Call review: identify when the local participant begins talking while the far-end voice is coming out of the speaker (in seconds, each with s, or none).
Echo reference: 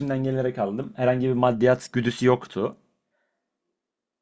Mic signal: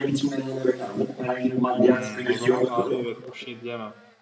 1.8 s